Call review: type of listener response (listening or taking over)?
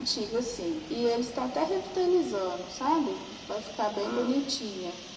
listening